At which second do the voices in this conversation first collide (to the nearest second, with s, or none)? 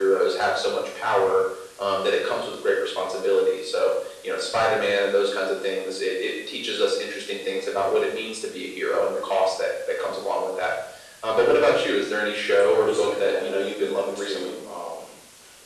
13 s